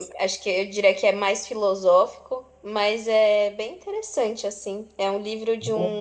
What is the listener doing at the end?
listening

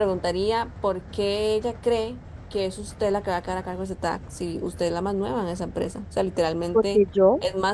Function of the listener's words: listening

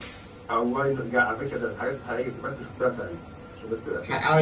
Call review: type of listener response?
taking over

